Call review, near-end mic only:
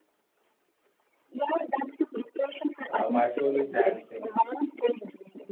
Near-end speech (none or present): present